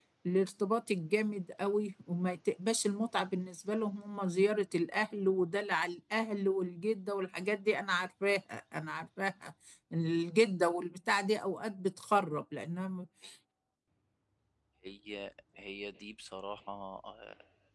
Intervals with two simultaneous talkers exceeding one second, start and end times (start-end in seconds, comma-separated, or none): none